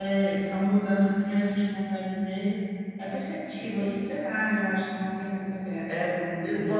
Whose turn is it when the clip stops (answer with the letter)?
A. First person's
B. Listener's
B